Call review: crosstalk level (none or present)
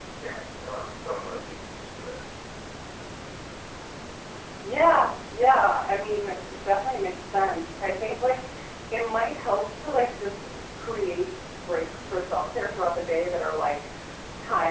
none